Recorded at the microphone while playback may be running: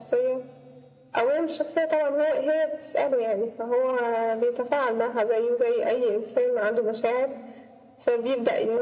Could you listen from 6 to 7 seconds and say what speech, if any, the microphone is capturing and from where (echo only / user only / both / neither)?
echo only